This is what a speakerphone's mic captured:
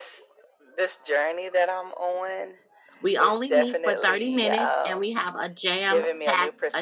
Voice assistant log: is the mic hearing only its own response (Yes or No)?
No